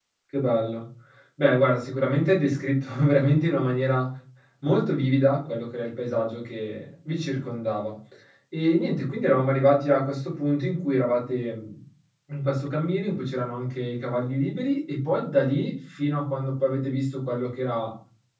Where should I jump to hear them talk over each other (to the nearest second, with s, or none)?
none